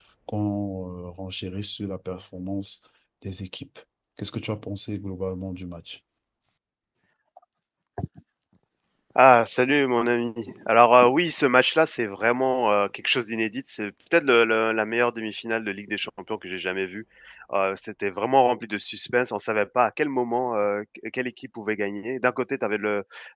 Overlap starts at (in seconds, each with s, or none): none